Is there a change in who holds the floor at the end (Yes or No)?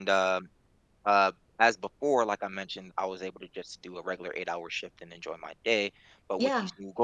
No